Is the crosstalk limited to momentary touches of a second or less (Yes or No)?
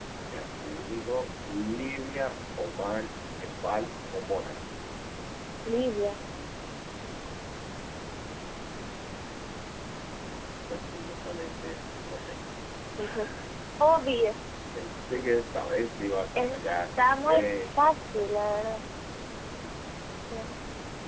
No